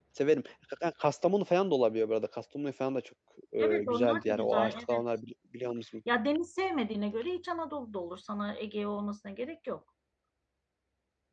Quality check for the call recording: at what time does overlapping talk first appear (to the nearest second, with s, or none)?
4 s